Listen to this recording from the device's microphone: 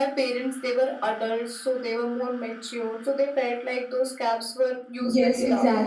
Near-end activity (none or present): present